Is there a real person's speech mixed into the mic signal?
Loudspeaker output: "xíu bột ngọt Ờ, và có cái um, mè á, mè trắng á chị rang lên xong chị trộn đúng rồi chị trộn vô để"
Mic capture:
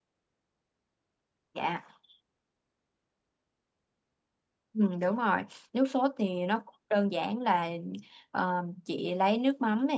Yes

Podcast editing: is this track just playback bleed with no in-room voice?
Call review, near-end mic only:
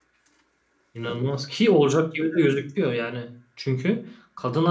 No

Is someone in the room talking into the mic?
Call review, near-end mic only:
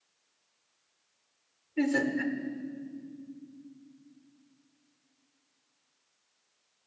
Yes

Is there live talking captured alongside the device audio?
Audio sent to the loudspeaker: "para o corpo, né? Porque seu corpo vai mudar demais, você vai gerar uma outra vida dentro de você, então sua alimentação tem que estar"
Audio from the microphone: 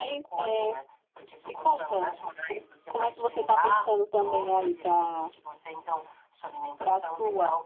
Yes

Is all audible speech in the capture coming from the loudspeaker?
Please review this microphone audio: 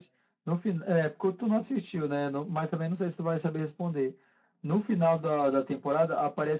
Yes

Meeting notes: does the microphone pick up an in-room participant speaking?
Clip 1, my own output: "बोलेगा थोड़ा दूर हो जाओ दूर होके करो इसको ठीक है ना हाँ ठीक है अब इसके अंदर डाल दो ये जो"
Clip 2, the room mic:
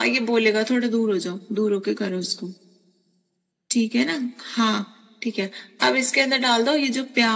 No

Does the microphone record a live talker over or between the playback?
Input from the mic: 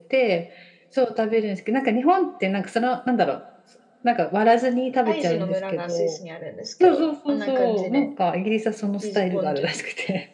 Yes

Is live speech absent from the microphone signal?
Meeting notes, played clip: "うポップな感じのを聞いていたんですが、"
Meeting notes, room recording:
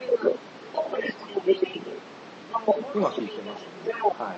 No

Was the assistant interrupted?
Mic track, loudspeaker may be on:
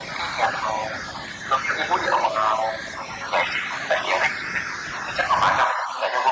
No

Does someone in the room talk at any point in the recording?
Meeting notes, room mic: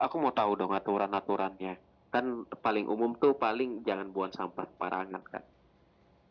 No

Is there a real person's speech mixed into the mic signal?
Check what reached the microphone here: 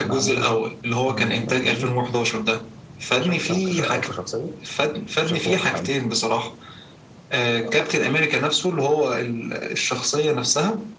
No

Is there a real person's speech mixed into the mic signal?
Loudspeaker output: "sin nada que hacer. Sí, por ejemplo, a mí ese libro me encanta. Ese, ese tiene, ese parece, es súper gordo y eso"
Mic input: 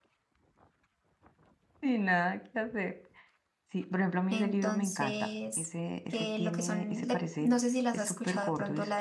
Yes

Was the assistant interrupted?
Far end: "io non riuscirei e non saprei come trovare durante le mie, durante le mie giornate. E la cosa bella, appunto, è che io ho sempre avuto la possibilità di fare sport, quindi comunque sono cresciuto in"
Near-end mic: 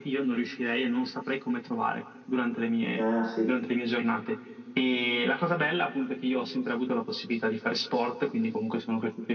Yes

